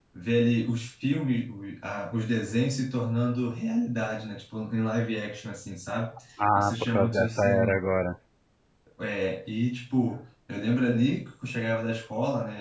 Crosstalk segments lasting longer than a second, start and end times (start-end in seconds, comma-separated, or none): 6.5-7.8